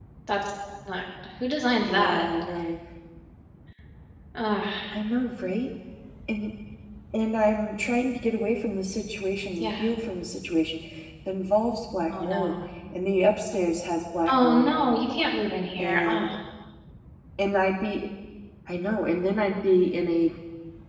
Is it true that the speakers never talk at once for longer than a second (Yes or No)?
Yes